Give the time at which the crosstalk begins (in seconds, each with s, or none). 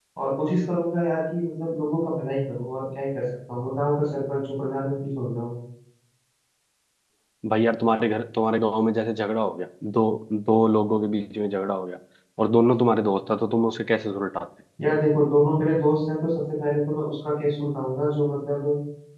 none